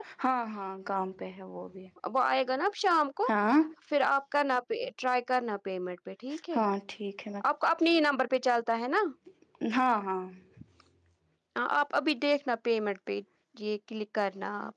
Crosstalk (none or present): none